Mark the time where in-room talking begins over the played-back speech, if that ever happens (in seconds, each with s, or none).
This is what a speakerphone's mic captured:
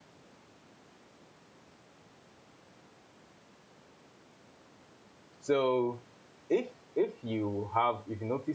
5.4 s